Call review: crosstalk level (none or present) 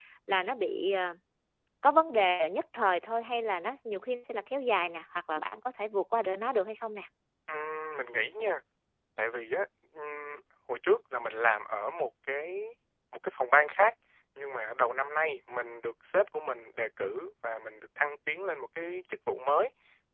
none